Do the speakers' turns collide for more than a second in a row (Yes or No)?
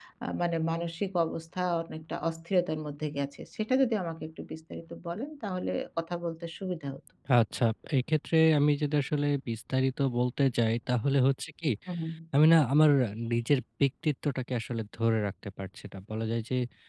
No